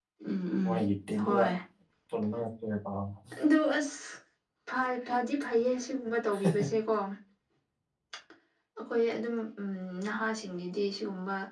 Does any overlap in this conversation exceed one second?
No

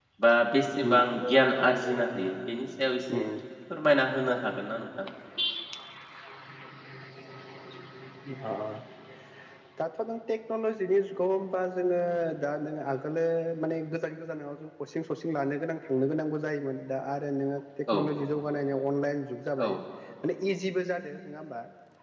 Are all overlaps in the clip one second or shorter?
Yes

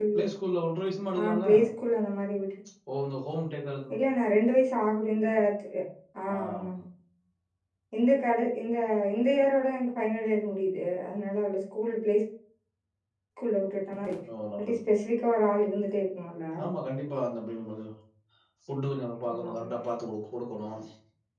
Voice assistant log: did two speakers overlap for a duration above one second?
No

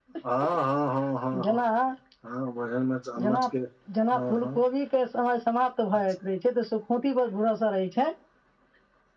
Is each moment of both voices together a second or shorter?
Yes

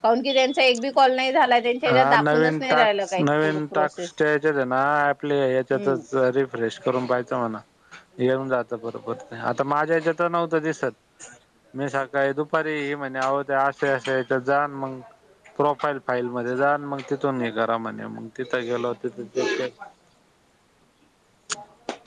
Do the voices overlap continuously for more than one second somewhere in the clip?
Yes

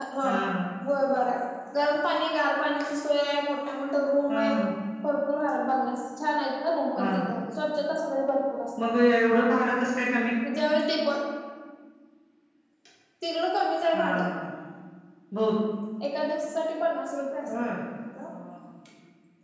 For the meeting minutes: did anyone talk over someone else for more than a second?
No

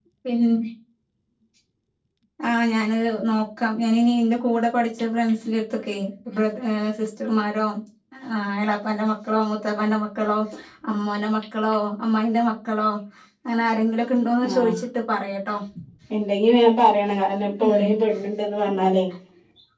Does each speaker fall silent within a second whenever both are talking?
Yes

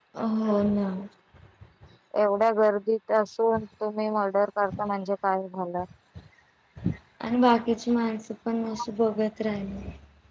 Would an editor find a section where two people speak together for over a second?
No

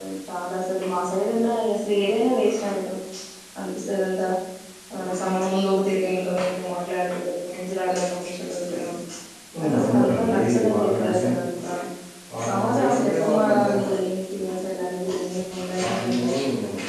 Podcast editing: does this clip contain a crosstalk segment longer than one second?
Yes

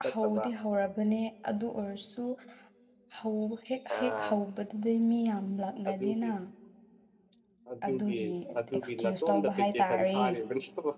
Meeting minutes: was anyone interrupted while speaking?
Yes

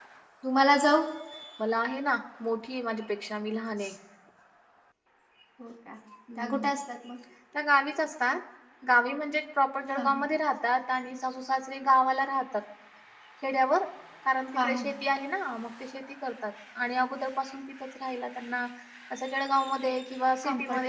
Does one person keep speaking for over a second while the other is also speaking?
No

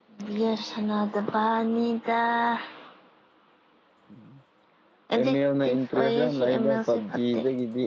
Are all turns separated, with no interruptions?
No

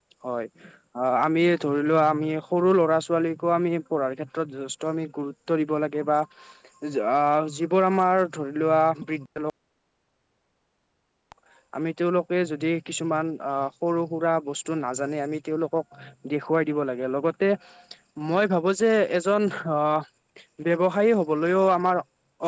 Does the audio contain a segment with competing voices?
No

